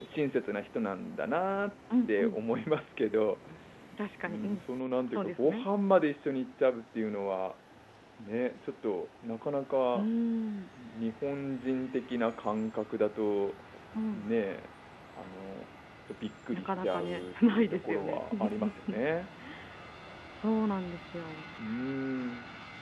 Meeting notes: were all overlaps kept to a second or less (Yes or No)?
No